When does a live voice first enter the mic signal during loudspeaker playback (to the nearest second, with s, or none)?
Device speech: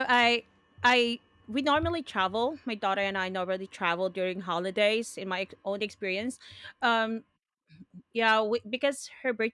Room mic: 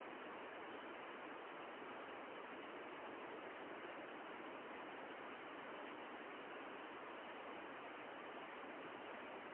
none